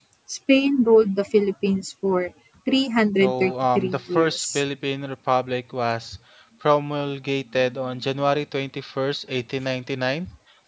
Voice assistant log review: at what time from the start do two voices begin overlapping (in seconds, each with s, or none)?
3.2 s